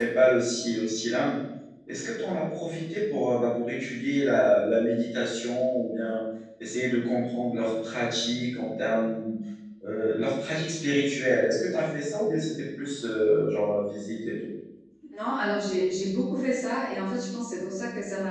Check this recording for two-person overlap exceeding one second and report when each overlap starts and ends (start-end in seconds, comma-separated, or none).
none